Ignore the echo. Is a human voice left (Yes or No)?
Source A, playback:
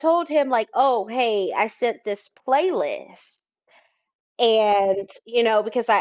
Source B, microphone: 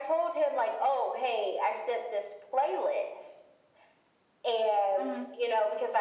Yes